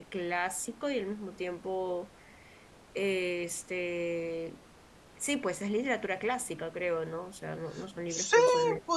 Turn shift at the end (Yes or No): Yes